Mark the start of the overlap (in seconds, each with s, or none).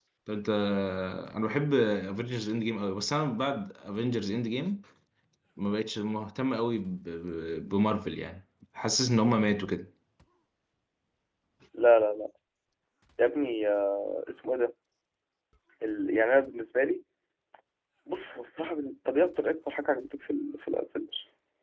none